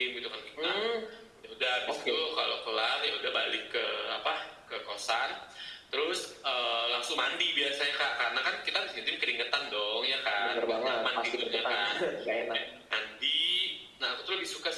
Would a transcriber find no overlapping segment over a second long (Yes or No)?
No